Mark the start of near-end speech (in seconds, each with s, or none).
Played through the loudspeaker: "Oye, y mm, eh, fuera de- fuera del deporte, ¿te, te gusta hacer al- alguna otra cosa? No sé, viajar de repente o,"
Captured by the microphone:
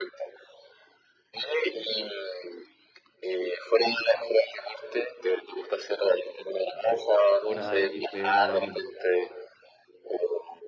6.8 s